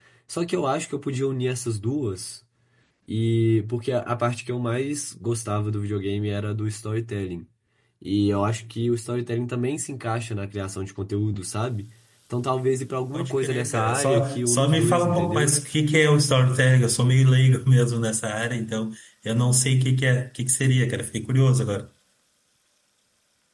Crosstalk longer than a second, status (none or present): present